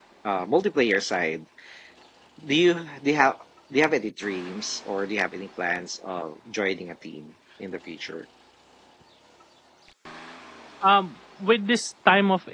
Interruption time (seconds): none

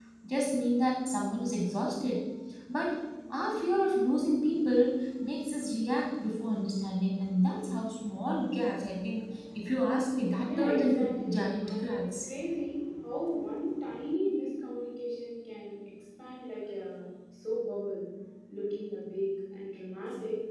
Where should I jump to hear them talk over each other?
10.4 s

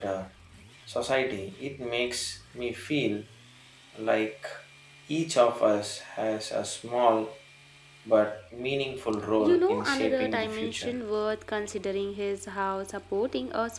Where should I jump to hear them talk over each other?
9.3 s

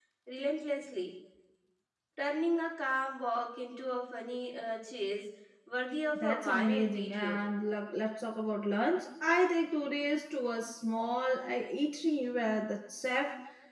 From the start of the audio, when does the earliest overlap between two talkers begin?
6.2 s

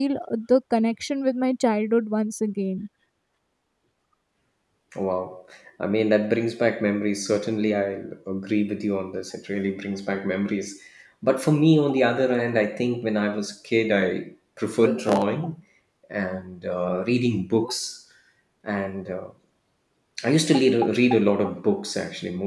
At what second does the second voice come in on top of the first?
none

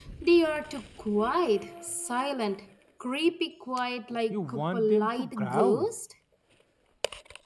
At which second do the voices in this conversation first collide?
4.3 s

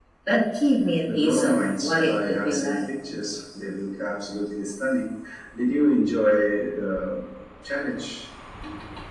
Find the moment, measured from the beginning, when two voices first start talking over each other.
1.1 s

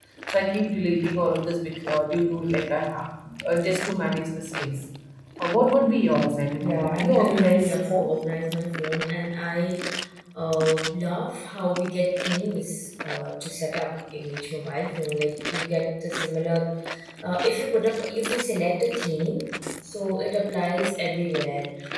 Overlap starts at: 6.6 s

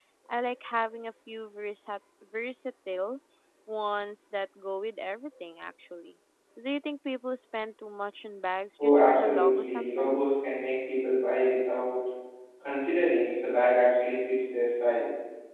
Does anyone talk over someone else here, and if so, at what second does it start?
8.8 s

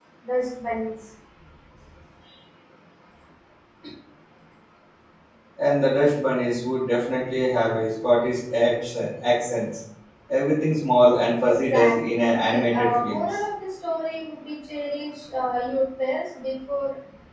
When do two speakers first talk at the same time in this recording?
11.4 s

